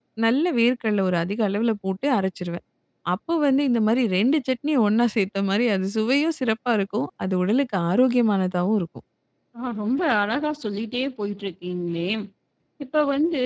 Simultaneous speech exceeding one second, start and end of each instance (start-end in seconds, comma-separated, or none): none